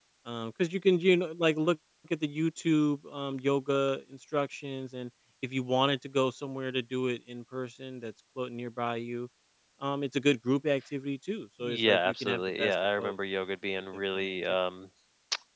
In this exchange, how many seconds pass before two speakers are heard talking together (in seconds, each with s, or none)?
11.6 s